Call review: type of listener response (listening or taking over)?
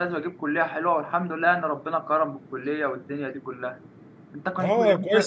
taking over